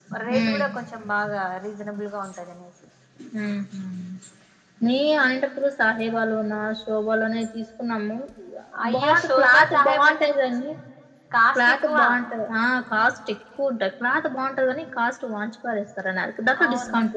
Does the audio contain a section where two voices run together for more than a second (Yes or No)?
Yes